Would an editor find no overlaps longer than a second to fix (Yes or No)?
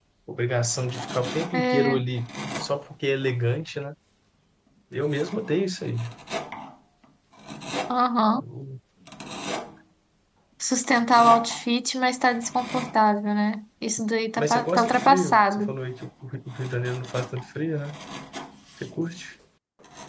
No